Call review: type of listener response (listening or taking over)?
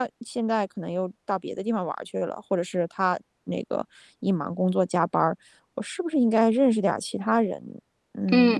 taking over